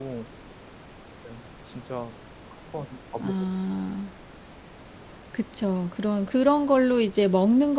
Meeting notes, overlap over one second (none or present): none